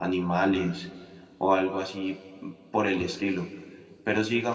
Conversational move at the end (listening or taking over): listening